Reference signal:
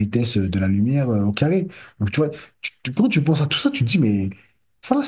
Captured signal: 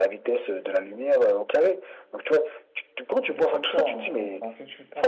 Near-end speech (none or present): present